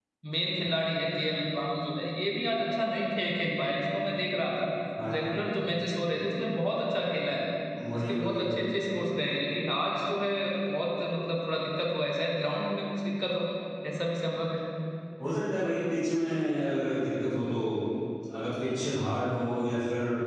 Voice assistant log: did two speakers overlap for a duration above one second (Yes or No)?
No